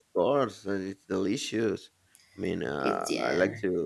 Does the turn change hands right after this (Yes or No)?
No